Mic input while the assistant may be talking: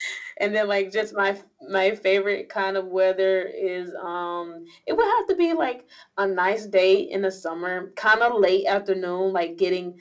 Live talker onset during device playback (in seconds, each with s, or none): none